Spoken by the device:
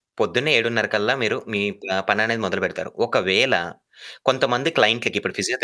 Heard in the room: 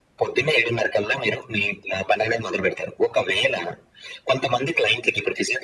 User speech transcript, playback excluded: none

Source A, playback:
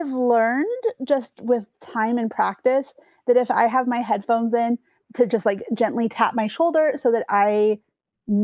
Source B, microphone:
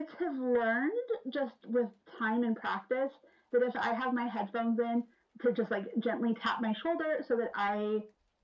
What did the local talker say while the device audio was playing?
none

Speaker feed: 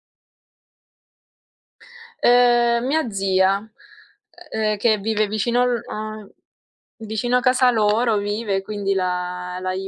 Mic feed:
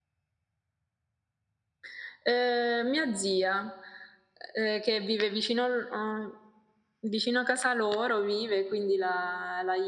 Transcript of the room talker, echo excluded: none

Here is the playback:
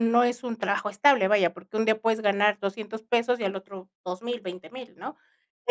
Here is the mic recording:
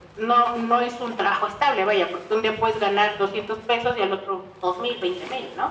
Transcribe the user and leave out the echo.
none

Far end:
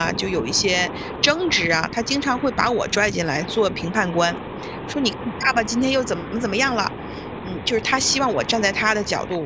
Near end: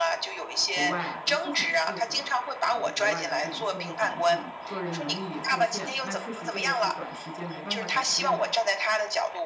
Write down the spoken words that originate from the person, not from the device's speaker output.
国外不是很适合，呃，国外的这种社会环境，个人能力也受限，那确实这个是短时间没办法改变的。

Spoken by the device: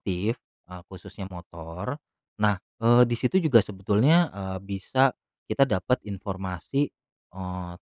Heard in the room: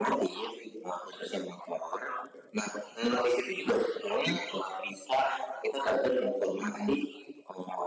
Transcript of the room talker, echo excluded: Mhm.

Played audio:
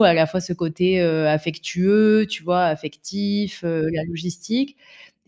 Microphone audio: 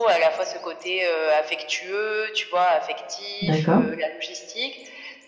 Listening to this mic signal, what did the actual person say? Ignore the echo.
D'accord.

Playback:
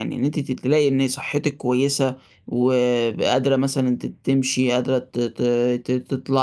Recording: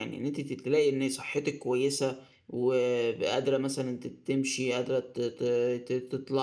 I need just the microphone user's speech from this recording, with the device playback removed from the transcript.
none

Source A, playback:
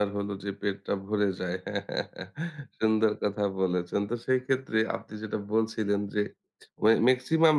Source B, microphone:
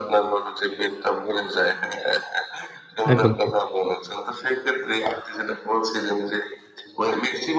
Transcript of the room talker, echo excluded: একদম ঠিক।

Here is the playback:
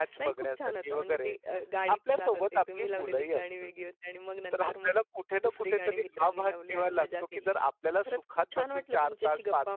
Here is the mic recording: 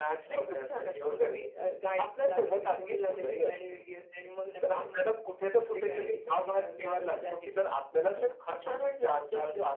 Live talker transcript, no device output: none

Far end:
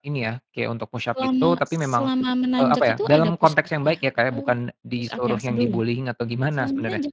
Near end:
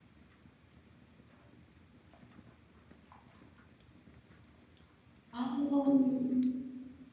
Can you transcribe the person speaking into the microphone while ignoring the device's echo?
Oh.

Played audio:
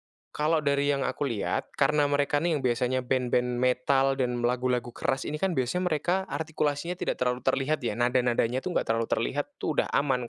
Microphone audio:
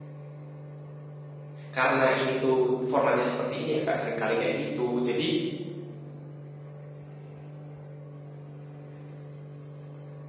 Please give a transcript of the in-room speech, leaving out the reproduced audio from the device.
karena ini tuh formatnya seperti ini ya Kak, sering kali kayak gitu, jadi,

